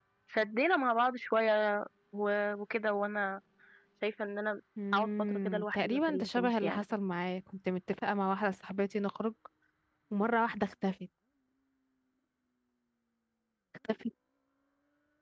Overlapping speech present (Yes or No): Yes